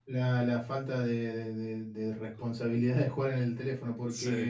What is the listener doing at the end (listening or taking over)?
listening